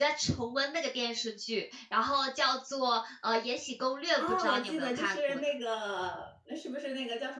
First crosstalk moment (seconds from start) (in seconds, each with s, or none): 4.2 s